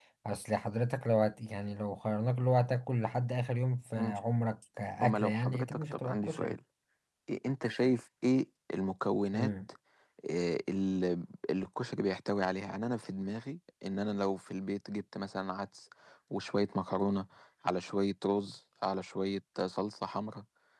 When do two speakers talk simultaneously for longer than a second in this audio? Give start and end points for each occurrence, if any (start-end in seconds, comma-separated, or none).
5.0-6.5